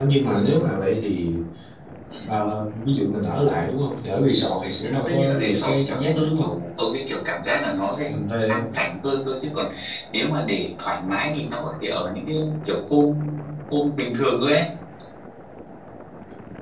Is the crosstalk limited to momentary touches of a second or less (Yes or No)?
No